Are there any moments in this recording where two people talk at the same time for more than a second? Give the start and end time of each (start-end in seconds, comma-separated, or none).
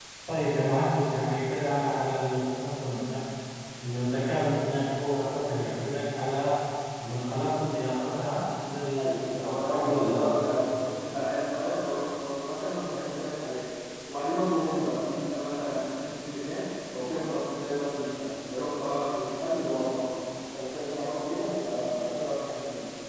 9.0-10.3